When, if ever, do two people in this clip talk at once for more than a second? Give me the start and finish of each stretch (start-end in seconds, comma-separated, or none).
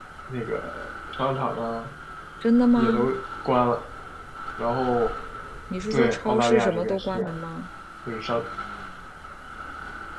5.9-7.4